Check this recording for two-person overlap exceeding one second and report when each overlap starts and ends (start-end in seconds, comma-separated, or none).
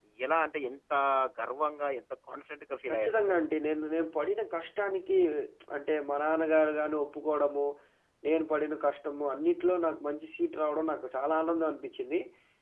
none